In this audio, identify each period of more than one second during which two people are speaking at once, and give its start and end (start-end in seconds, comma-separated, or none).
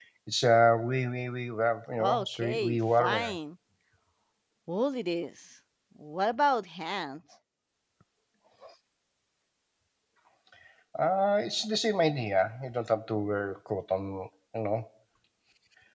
2.0-3.4